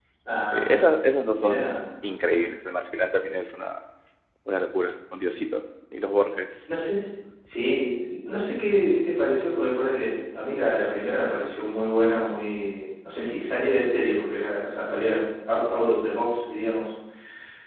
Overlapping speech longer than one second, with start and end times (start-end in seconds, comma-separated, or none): none